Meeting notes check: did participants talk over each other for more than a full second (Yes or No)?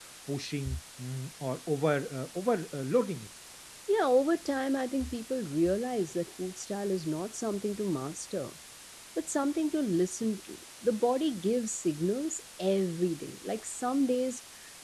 No